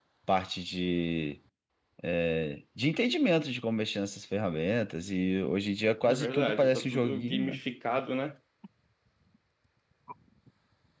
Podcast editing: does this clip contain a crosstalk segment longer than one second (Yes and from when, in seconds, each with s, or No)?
Yes, from 6.1 s